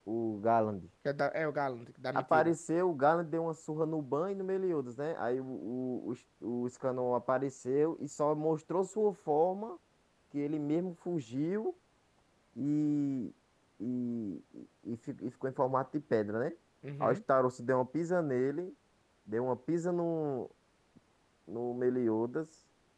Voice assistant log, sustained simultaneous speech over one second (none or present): none